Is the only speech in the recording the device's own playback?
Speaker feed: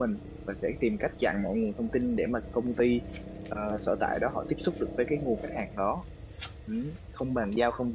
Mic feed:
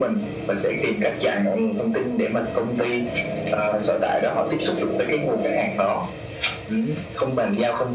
Yes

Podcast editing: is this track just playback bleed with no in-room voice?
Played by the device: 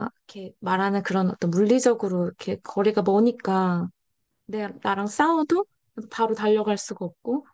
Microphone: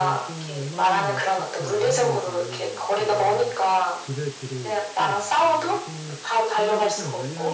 No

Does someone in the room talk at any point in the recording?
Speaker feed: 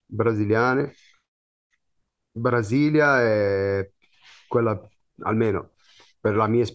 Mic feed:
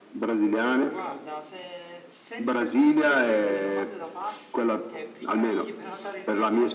Yes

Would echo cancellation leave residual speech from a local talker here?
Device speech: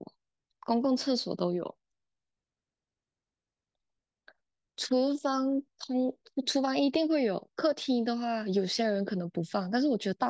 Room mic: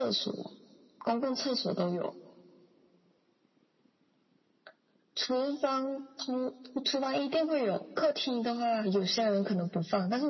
No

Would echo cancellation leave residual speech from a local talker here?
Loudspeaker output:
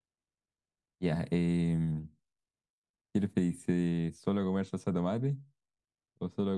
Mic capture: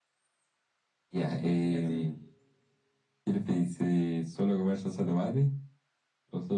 Yes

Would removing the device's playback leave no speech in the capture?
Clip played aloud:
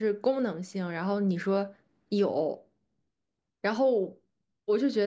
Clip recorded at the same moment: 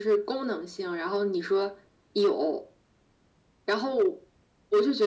Yes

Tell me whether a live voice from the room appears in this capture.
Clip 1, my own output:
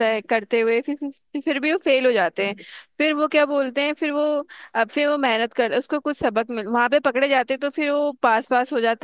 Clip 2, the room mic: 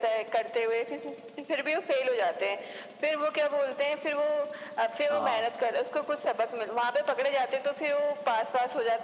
Yes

